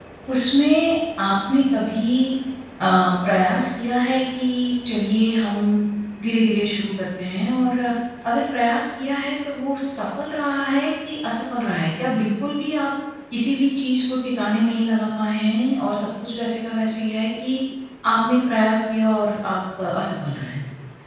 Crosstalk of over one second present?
No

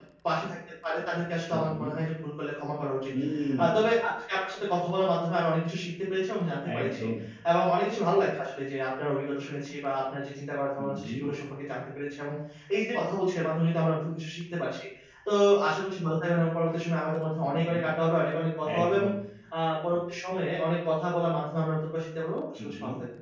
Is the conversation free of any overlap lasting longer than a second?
Yes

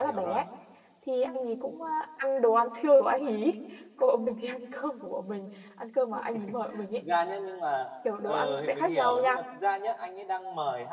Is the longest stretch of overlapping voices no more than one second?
No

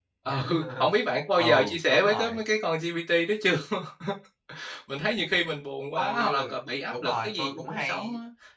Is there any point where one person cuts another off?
Yes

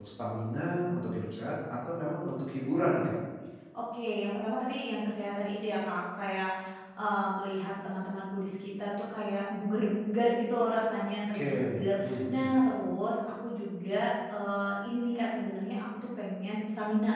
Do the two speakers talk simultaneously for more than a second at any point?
Yes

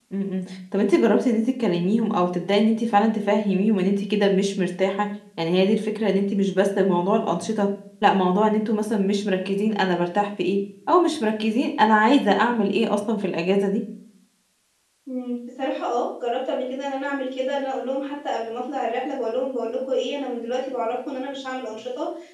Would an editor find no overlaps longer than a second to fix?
Yes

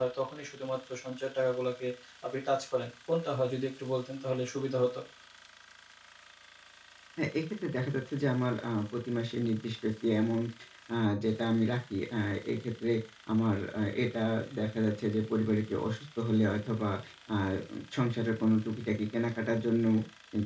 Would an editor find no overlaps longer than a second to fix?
Yes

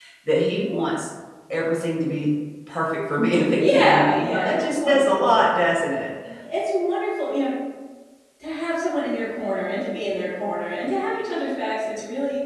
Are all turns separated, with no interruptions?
No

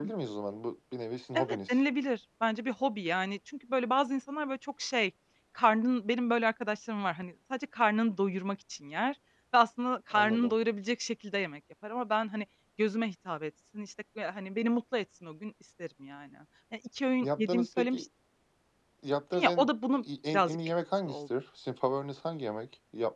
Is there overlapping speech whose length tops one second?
Yes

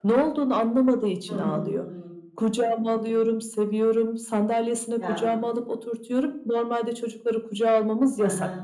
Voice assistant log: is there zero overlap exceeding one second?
Yes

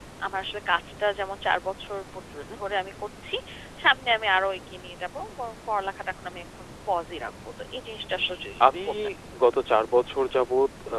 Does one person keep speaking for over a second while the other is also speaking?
No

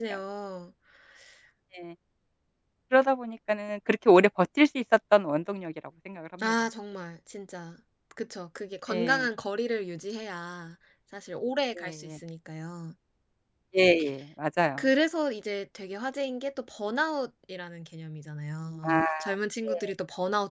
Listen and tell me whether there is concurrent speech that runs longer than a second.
No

